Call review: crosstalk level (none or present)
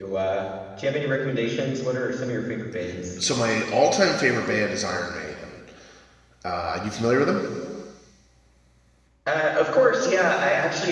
none